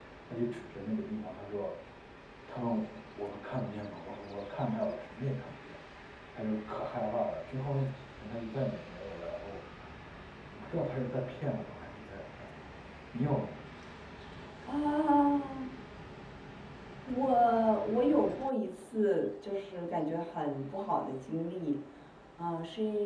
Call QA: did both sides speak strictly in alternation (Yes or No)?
Yes